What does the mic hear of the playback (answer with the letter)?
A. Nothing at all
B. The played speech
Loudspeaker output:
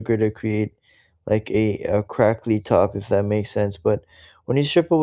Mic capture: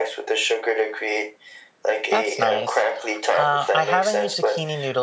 B